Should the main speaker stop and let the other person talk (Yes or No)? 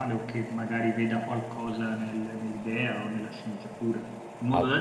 No